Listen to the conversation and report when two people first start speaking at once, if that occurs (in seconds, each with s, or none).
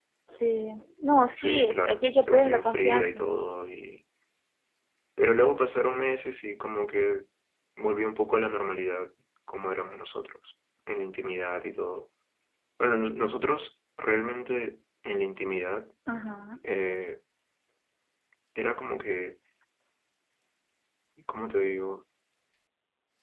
1.3 s